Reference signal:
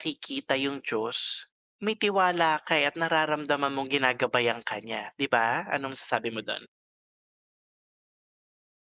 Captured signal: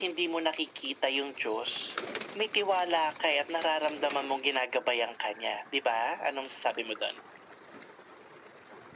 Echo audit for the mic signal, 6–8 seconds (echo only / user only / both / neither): echo only